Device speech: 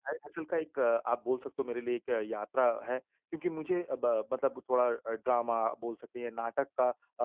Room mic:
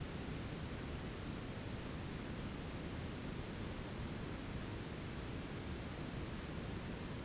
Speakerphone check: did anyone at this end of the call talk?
No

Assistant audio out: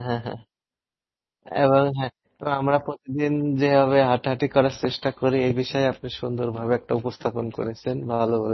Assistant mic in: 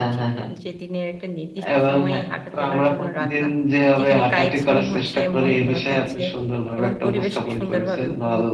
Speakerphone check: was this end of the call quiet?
No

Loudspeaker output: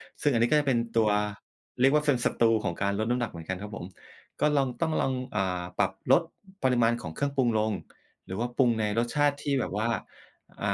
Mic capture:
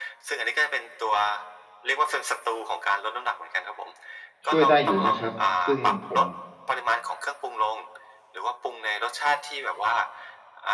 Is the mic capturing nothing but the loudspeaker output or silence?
No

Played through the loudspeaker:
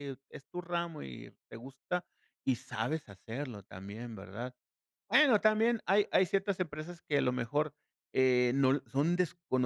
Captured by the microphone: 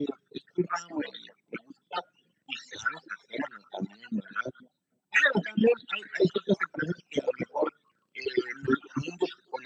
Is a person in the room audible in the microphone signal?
No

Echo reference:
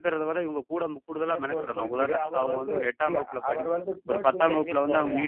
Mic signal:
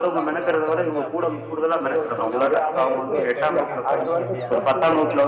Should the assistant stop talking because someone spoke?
Yes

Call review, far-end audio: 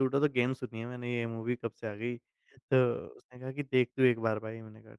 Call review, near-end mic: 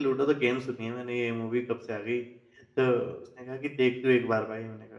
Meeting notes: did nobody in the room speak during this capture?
Yes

